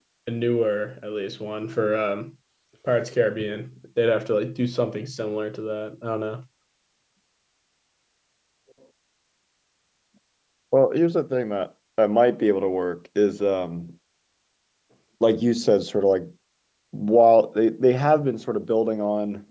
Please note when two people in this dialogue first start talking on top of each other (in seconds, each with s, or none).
none